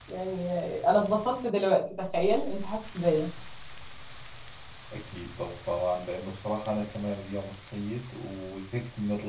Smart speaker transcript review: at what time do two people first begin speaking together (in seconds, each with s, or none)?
none